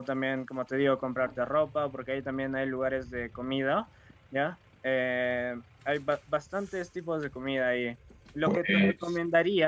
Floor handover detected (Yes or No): No